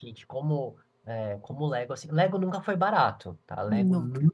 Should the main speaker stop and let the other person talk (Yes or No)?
No